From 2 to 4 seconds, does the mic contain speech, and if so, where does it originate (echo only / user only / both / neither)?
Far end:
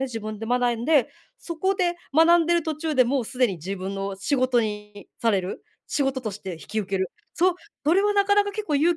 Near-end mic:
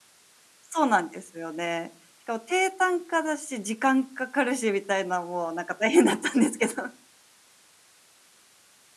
user only